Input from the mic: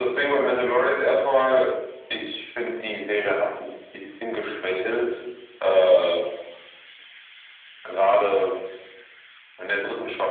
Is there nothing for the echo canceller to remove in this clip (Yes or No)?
No